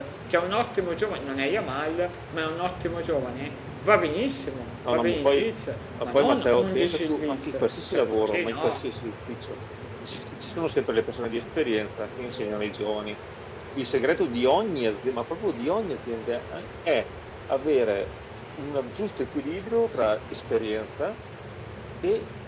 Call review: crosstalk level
present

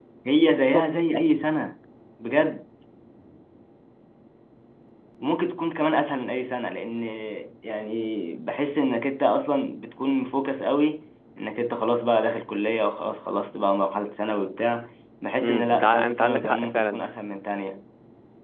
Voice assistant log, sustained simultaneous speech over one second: present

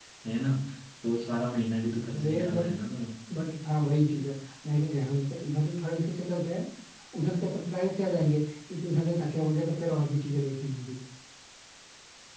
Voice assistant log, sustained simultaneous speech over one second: none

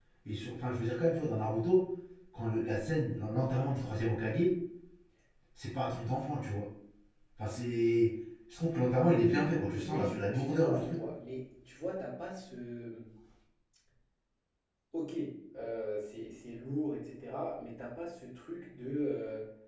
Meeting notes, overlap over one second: present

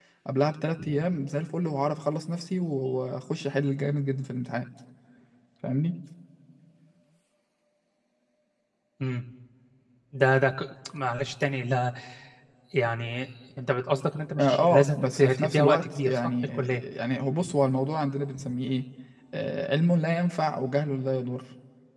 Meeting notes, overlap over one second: present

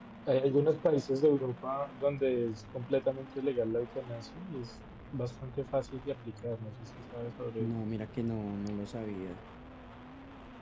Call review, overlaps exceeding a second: none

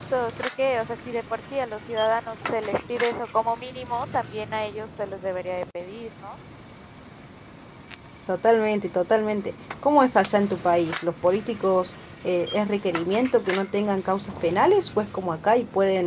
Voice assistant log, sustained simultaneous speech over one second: none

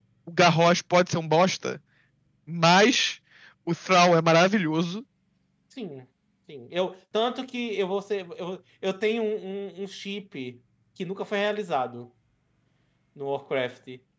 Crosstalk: none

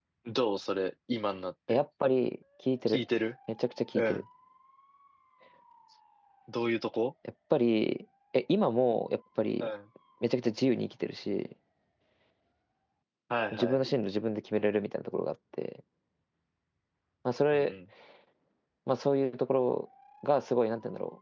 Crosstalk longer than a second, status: none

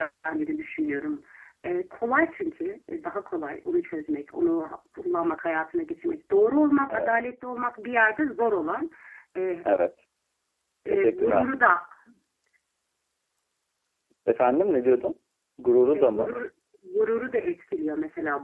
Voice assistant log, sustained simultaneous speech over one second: none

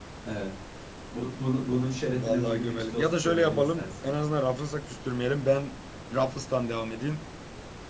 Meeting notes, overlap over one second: present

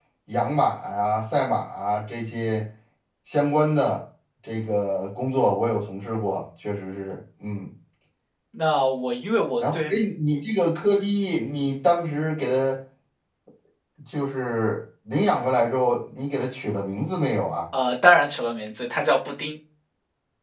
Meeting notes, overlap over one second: none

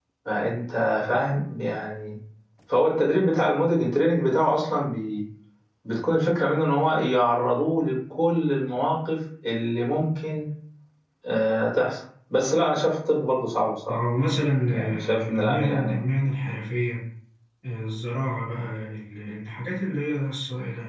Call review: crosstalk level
present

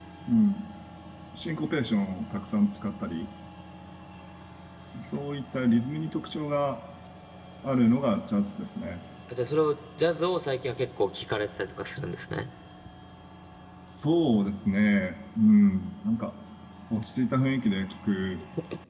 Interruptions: none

